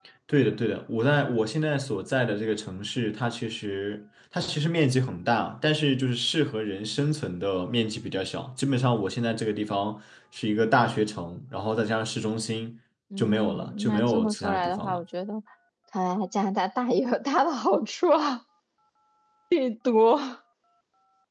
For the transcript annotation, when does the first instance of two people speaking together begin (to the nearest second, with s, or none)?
13 s